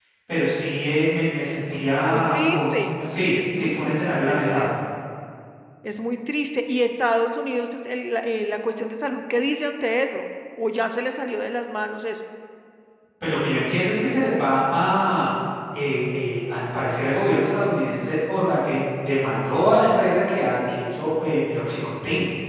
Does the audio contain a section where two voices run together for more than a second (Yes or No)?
Yes